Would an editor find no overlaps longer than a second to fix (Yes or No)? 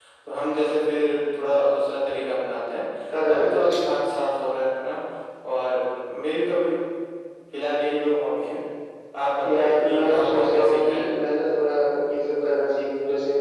No